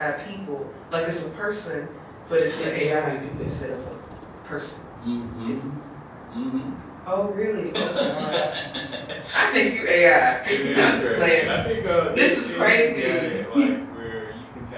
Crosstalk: present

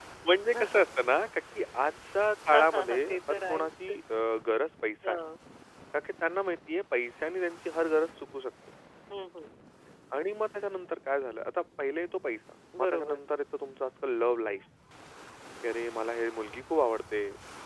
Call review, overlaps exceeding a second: present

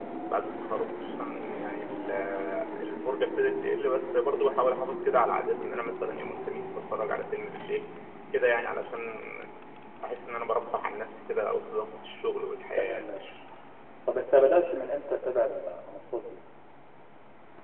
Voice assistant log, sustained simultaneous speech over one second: none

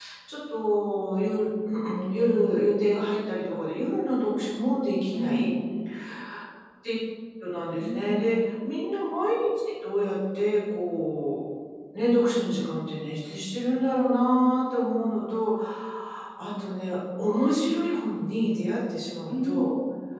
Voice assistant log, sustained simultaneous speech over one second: none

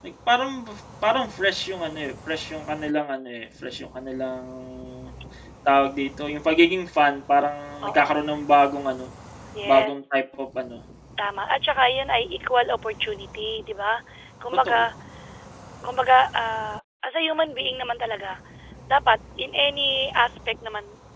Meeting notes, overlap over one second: none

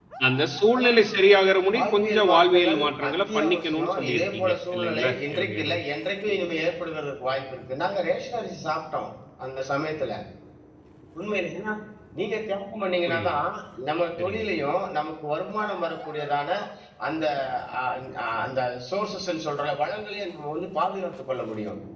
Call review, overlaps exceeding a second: present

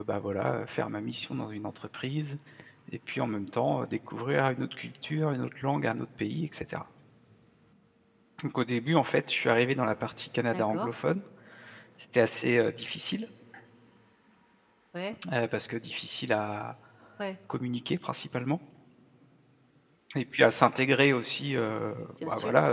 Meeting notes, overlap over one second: none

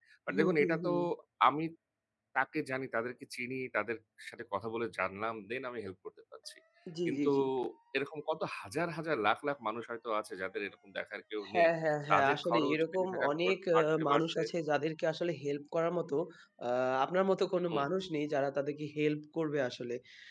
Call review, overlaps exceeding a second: present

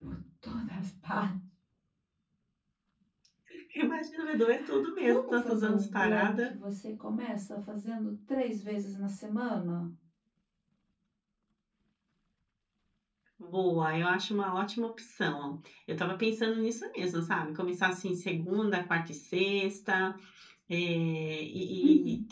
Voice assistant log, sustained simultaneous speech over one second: present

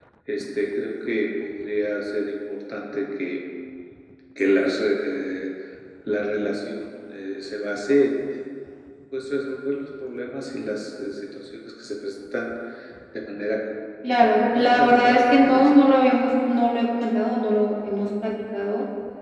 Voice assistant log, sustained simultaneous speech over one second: present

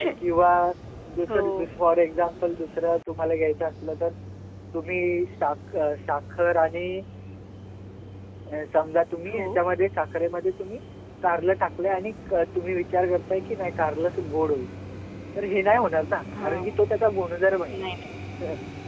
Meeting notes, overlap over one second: none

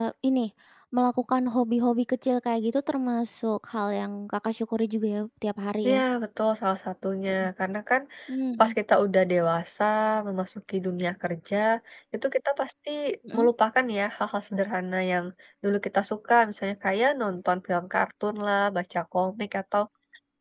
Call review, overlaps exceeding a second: none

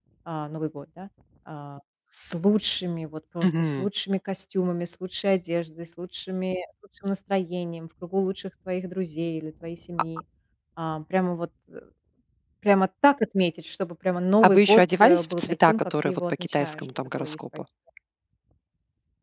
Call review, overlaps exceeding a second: present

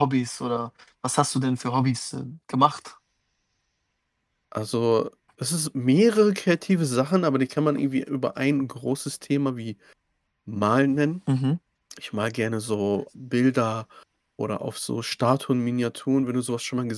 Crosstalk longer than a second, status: none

